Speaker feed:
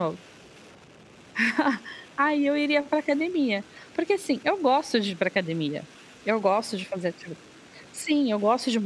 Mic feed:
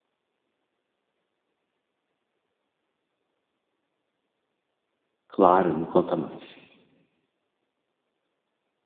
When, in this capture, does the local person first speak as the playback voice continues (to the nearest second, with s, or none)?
5 s